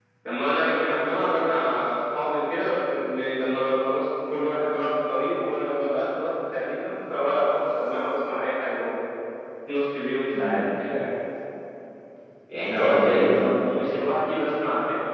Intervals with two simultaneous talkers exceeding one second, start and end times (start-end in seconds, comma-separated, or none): 12.7-14.1